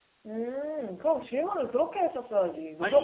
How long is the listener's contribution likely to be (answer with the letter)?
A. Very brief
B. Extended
B